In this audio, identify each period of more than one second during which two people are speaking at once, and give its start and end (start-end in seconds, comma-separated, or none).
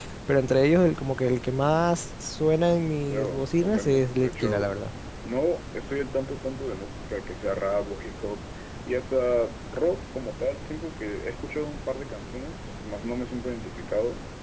3.1-4.7